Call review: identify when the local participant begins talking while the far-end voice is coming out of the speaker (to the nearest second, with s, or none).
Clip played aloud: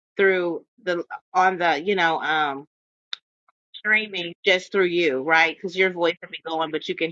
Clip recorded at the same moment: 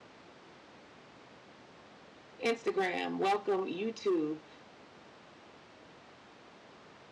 2 s